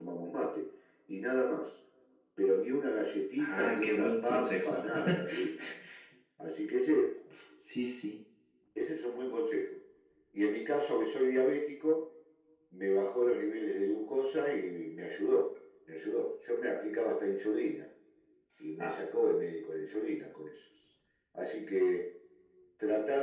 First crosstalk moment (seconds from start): 3.4 s

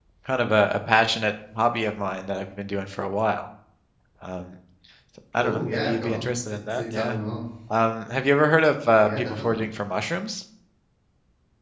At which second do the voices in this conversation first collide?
5.4 s

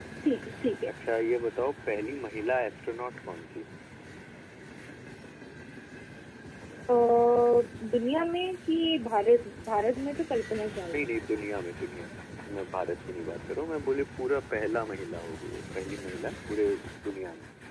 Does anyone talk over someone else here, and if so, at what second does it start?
none

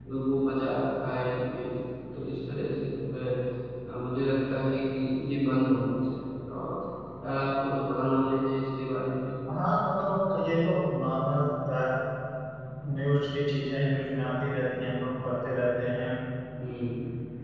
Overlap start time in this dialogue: none

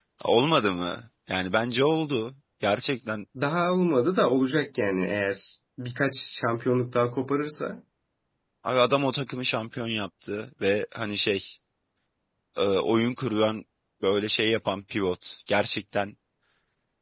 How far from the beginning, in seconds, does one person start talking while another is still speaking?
none

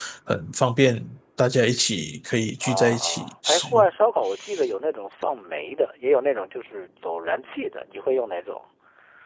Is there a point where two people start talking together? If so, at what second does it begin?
2.6 s

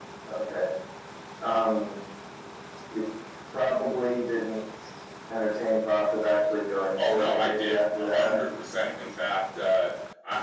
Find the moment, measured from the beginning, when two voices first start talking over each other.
7.0 s

